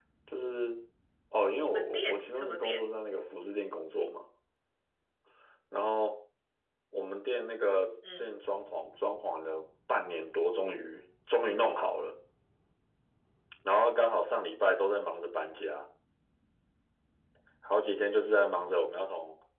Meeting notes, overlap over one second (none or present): present